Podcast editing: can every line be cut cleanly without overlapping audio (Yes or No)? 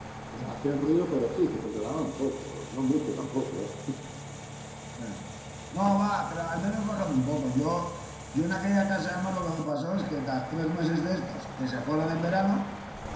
Yes